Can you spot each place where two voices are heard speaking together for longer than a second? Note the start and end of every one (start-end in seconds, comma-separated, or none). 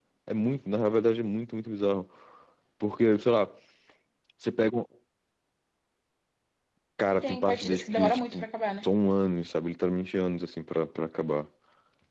7.1-8.4